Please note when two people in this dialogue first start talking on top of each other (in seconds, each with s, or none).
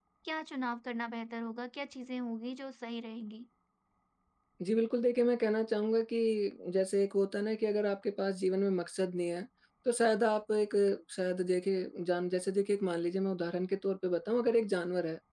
none